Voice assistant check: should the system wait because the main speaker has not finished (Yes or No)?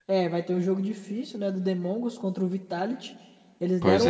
Yes